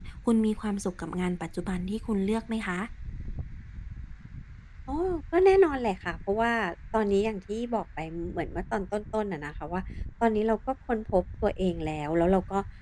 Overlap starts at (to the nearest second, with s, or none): none